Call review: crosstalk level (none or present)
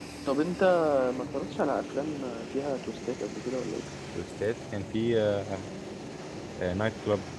none